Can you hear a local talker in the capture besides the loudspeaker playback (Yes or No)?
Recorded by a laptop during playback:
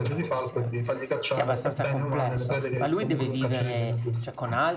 Yes